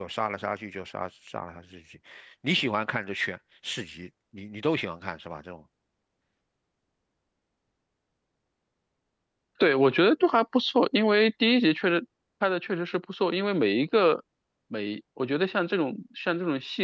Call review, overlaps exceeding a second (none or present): none